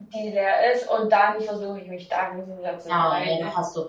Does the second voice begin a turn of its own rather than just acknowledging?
Yes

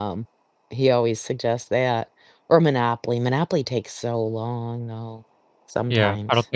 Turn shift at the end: Yes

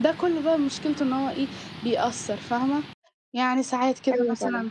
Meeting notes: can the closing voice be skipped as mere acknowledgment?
Yes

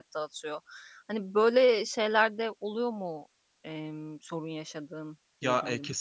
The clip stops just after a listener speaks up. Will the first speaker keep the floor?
No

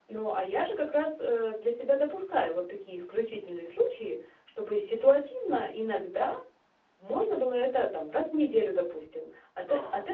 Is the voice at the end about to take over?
No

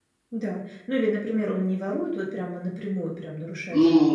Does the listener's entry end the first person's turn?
No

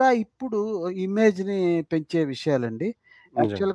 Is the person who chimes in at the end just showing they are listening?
Yes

